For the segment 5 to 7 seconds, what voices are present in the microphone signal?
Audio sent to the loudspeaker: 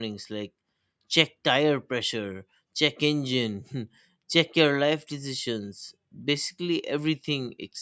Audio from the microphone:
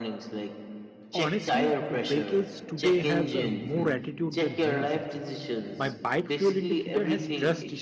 both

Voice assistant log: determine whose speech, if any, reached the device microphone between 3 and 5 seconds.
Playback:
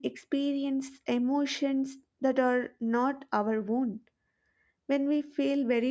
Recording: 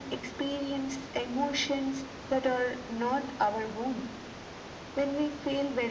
echo only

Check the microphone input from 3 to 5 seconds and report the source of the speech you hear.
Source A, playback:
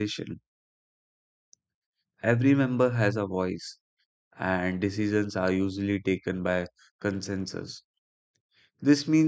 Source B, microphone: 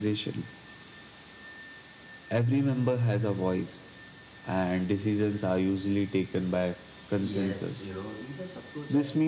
echo only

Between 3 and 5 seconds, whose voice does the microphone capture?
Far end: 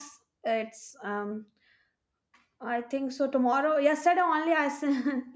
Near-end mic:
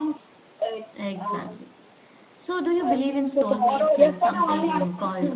both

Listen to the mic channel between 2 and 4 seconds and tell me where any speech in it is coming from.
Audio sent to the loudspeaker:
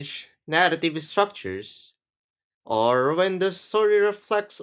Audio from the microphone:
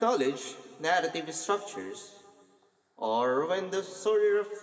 echo only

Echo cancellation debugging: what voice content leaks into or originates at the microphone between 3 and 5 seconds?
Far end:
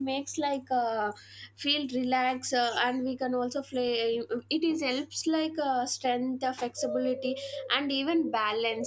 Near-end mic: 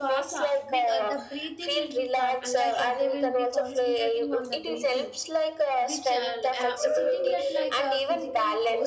both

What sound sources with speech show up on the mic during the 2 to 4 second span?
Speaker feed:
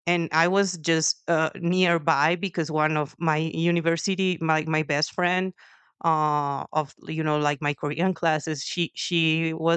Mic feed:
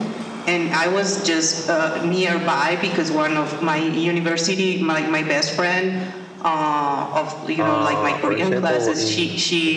echo only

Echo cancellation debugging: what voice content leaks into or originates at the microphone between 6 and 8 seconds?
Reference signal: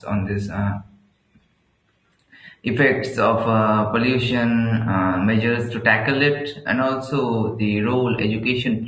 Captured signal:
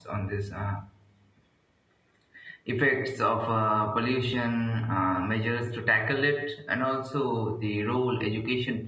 echo only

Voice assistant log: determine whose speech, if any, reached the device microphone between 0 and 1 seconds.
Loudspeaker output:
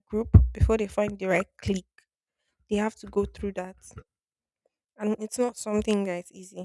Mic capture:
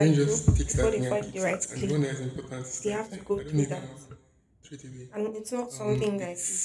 both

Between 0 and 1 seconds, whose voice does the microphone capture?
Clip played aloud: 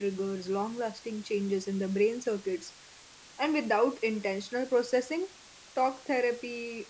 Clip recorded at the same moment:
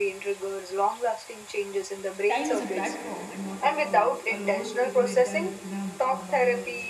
echo only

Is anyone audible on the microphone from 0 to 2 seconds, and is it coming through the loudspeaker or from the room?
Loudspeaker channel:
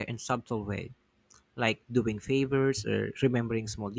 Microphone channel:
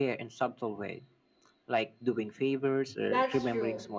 echo only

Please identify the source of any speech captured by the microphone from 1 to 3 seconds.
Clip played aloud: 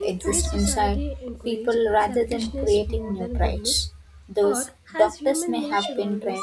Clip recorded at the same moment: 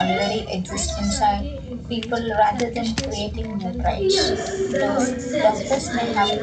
echo only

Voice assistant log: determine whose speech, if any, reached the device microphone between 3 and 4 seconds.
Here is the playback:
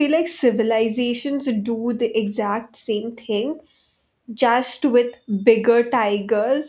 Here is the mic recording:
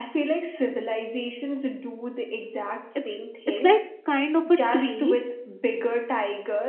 both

